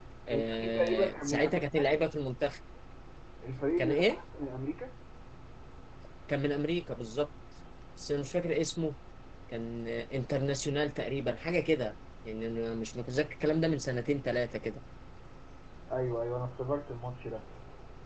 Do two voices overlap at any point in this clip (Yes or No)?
Yes